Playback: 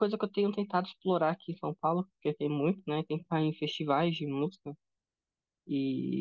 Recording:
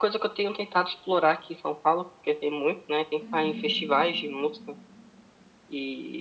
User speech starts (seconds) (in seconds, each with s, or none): 3.2 s